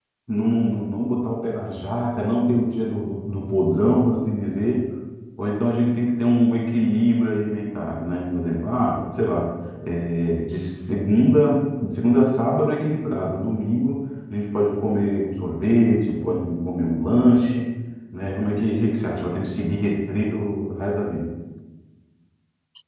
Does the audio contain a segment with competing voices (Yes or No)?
No